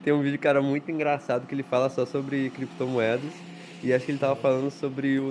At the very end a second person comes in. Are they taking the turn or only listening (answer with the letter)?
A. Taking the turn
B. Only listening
B